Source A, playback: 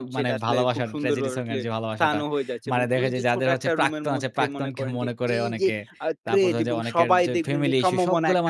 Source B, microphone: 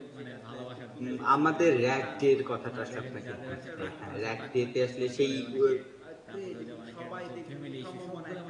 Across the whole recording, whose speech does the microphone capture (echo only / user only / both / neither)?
both